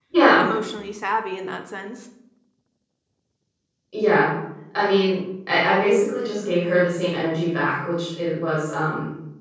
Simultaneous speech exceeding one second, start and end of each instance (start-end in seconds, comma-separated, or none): none